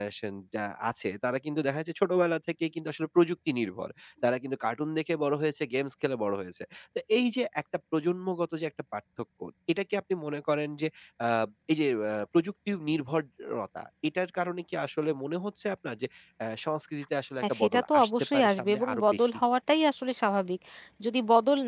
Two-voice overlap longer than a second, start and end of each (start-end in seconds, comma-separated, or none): 17.4-19.4